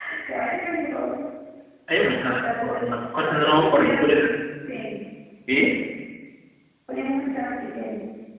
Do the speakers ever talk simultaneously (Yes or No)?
Yes